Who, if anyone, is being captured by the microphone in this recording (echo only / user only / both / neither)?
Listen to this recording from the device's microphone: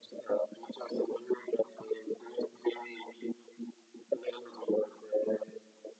echo only